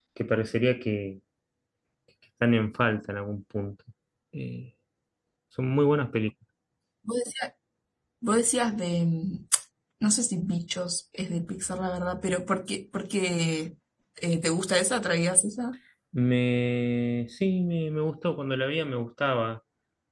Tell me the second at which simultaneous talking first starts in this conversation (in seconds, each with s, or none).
none